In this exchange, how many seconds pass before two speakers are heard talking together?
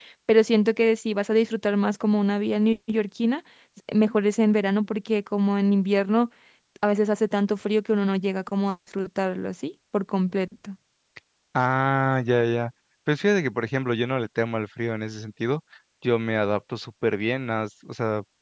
none

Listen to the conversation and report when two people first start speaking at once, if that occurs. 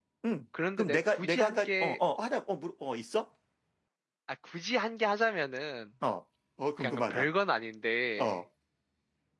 1 s

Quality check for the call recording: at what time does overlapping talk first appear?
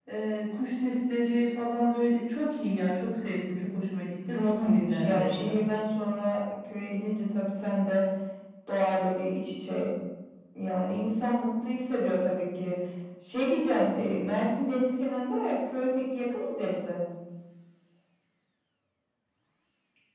4 s

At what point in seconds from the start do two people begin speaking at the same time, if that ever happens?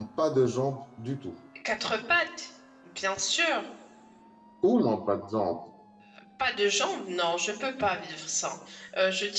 none

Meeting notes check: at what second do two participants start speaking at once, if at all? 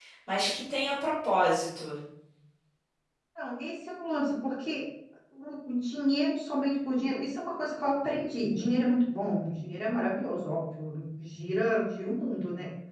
none

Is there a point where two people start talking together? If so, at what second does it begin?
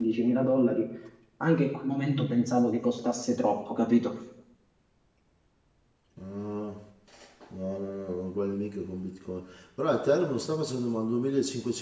none

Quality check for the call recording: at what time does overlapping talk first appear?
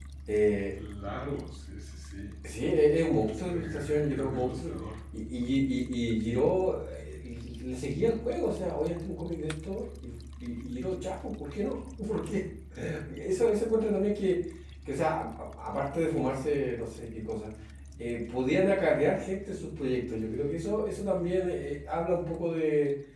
3 s

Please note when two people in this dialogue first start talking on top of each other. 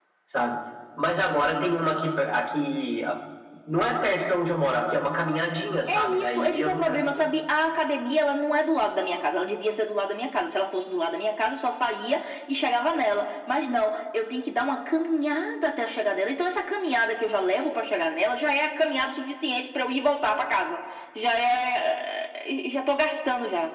6 s

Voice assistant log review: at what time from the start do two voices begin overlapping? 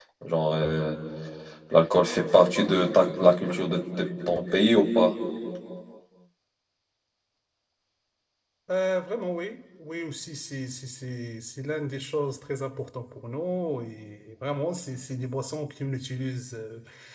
none

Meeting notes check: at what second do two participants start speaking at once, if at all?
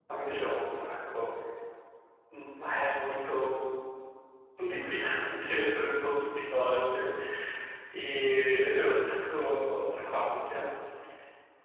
none

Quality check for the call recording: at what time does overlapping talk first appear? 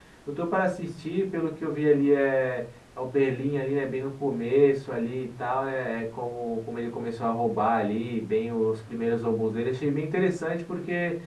none

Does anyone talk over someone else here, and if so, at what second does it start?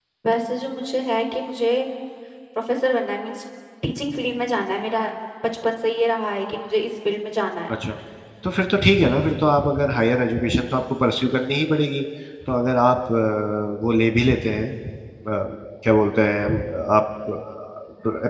none

